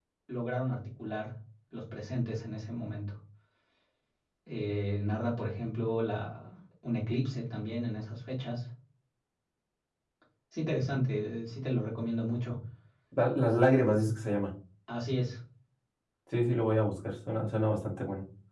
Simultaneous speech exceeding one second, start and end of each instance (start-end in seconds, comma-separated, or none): none